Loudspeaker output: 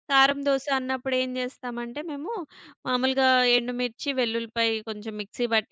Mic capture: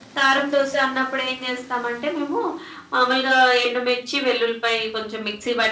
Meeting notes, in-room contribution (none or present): none